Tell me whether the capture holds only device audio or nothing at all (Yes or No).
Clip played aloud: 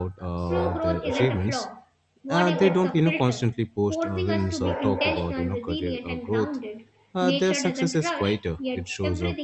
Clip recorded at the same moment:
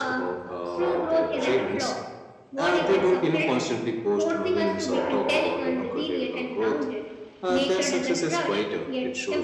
Yes